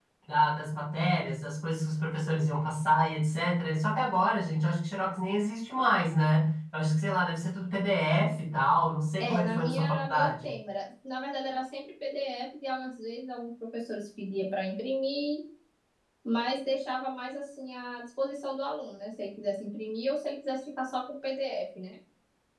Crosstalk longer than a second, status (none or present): present